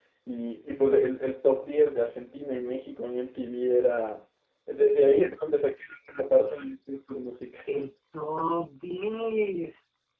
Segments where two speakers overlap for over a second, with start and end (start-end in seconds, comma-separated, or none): none